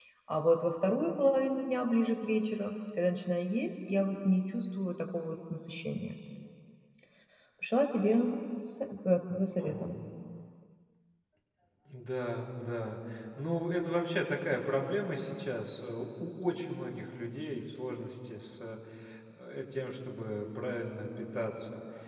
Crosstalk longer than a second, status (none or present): none